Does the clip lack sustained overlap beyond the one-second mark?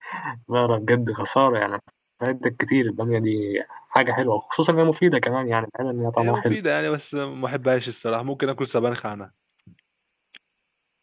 Yes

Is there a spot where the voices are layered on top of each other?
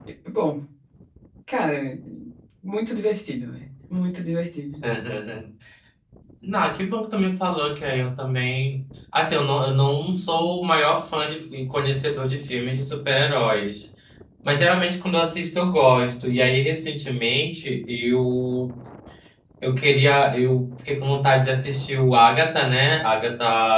No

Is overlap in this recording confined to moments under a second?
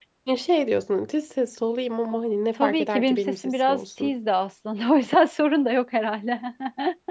No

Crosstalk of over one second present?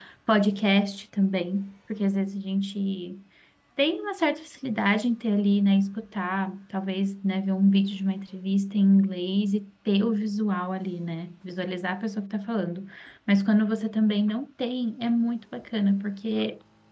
No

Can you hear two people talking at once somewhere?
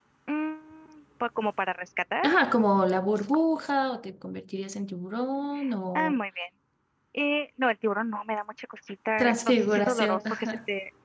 Yes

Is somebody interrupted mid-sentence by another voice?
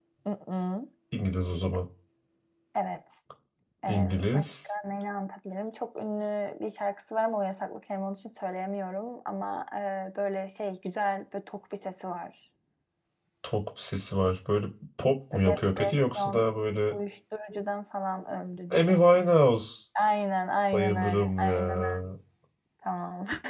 Yes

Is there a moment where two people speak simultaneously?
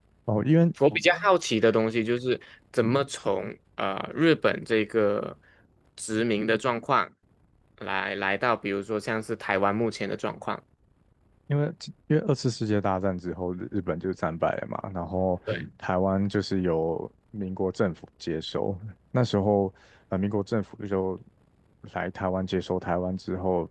No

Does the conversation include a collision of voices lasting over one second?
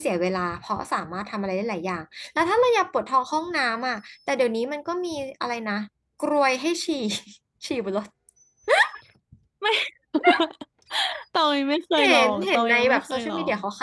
Yes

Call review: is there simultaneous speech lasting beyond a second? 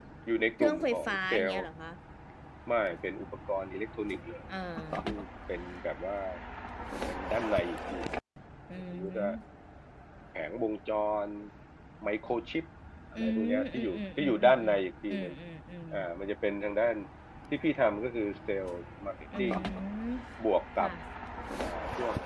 Yes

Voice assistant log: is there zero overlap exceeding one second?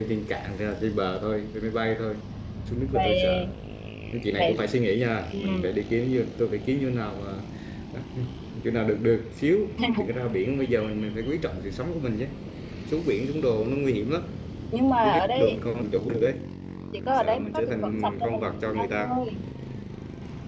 No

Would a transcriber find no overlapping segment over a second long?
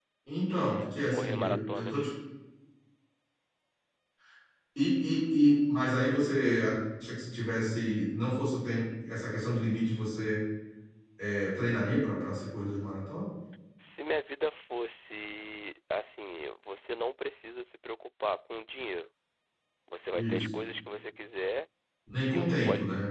No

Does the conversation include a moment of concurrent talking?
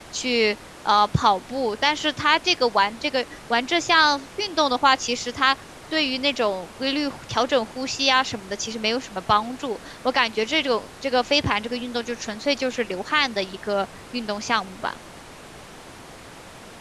No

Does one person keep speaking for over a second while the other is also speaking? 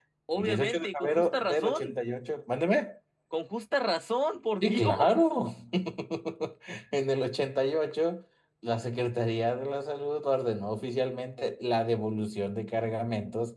Yes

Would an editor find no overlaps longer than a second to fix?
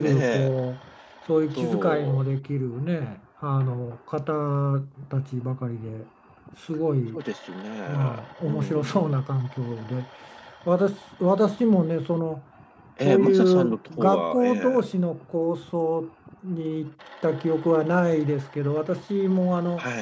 No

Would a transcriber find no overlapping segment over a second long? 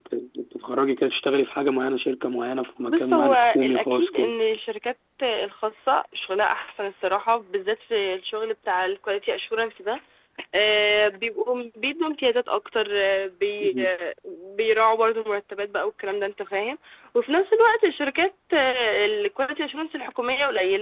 No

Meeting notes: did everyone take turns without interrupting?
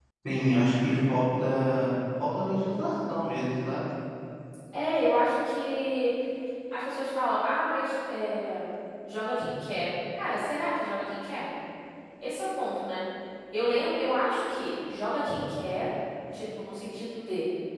Yes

